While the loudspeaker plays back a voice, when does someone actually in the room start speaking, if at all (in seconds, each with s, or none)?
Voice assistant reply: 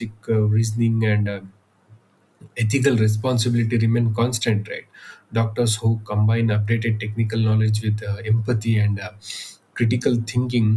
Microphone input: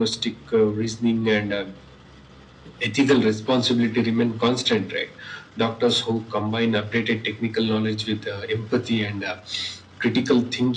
none